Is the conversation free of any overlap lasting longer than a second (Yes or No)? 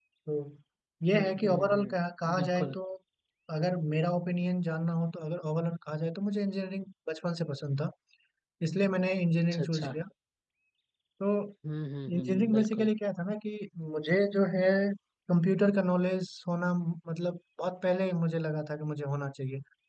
No